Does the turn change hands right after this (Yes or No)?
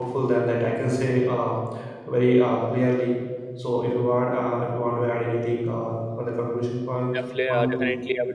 Yes